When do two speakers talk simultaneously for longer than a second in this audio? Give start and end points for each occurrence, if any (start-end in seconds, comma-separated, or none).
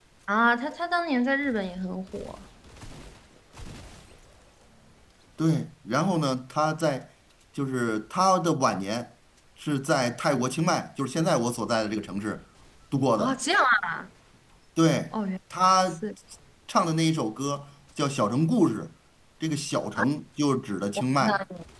none